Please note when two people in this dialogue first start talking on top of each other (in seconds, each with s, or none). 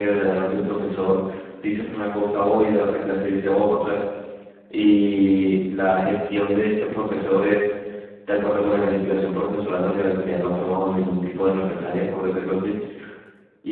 none